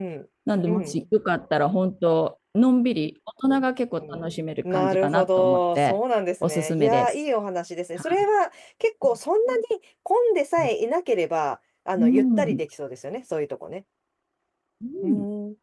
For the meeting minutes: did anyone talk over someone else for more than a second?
Yes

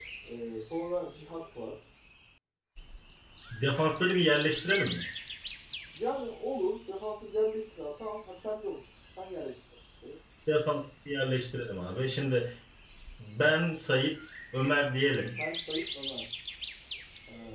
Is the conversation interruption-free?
Yes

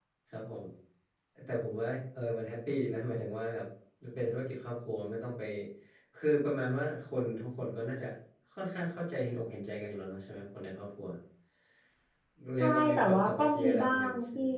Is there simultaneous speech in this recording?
Yes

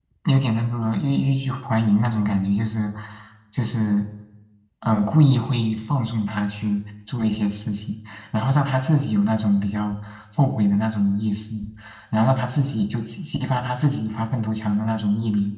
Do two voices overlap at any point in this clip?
No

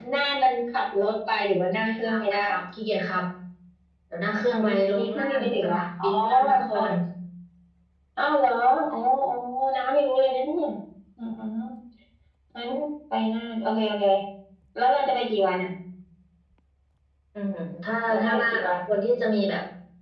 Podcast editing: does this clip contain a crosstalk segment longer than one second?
Yes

